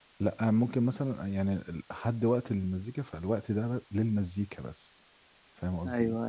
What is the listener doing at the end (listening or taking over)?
taking over